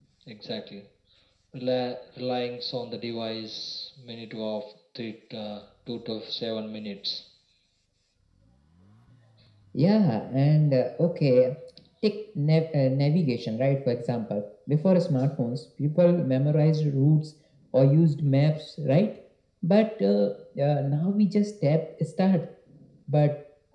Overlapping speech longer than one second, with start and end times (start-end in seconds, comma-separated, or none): none